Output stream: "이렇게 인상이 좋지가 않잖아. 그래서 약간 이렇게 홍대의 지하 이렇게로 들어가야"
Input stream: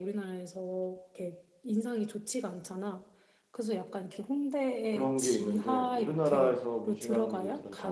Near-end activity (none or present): present